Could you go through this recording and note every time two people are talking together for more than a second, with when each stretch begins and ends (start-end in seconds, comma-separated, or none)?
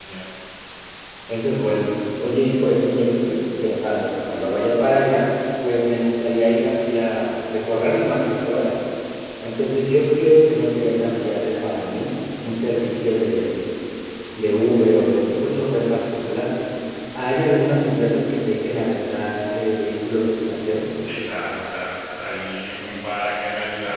none